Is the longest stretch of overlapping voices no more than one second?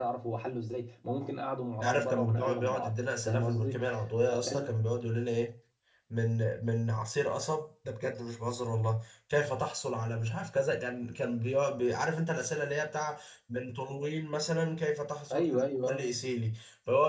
No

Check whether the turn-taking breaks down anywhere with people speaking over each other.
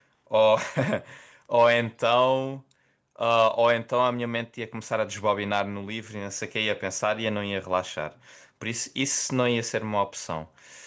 No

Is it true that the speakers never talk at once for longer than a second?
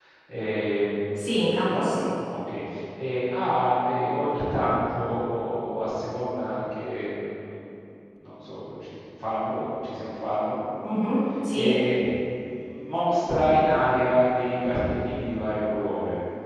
Yes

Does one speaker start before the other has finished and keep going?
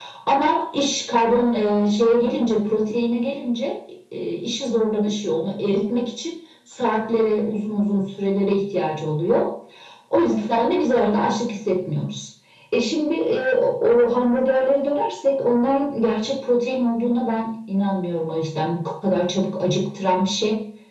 No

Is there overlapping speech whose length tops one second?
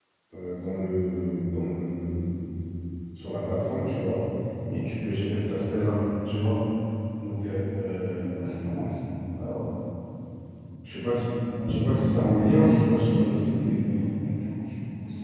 Yes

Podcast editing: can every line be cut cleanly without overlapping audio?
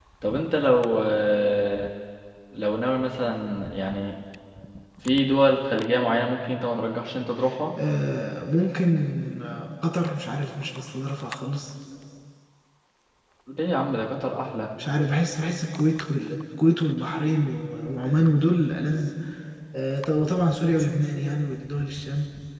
Yes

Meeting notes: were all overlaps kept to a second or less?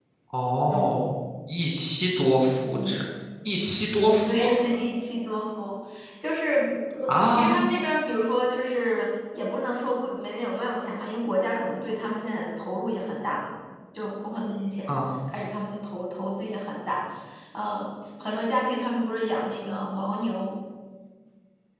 Yes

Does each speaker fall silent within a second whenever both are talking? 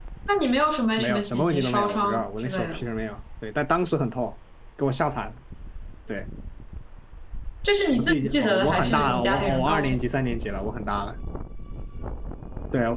No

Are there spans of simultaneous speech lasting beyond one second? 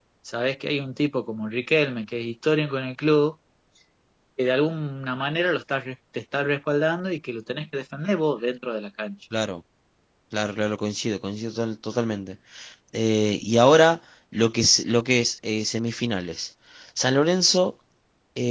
No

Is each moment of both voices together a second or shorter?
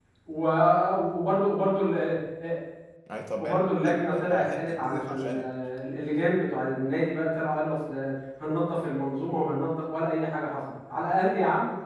No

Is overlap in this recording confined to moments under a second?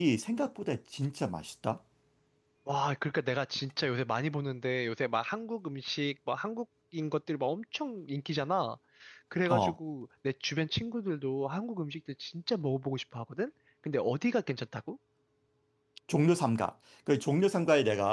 Yes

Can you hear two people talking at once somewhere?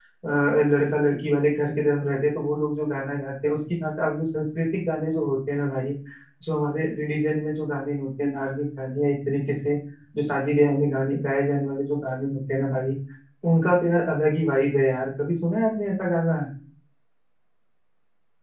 No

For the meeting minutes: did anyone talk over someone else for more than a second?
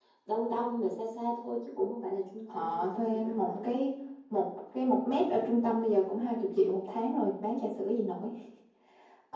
Yes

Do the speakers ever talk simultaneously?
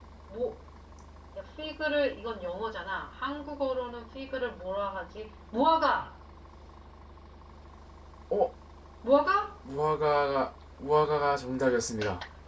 No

